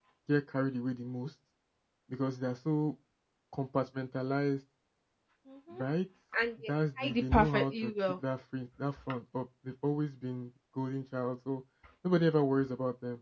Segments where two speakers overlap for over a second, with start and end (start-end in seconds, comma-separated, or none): 6.6-8.2